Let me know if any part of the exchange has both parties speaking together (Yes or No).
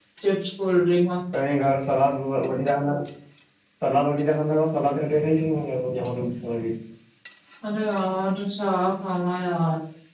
No